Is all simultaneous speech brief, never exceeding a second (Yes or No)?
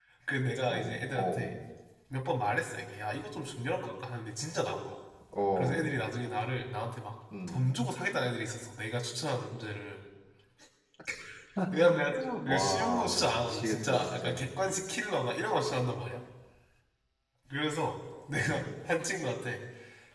No